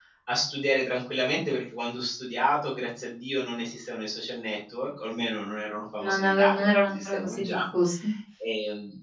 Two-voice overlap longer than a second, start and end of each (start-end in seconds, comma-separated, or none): 6.0-7.6